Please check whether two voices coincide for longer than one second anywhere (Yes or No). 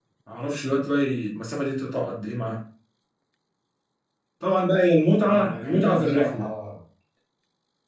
Yes